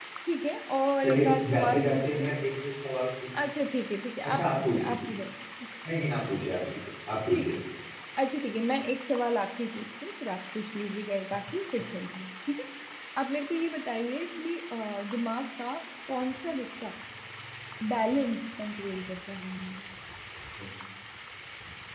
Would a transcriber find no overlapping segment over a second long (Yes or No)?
No